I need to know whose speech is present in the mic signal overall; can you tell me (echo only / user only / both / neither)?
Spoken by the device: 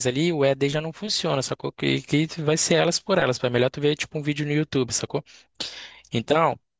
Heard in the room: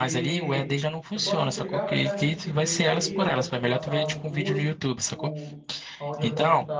both